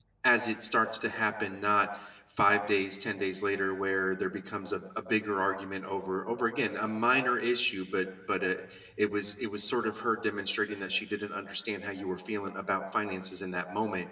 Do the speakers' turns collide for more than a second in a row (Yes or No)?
No